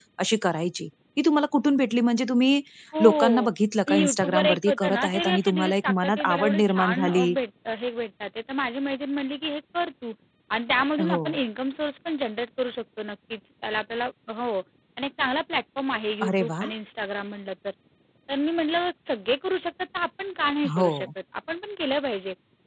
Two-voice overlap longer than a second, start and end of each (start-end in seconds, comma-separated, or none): 3.9-7.3